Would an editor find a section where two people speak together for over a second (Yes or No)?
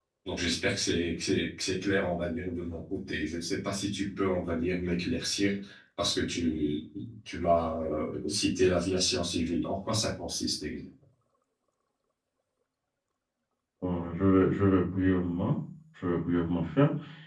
No